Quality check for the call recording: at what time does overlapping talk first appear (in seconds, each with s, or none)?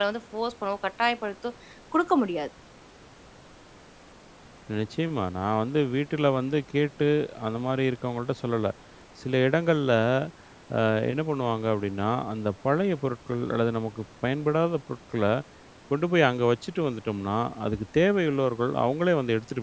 none